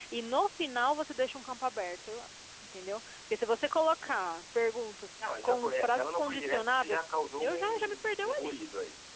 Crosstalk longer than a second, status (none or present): present